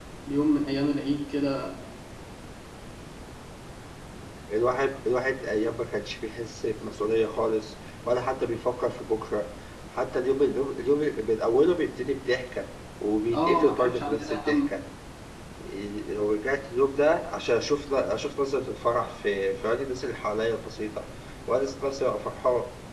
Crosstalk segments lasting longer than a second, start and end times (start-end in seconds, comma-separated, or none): 13.3-14.6